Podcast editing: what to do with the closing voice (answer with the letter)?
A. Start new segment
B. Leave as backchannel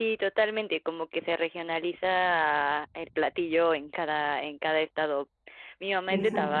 B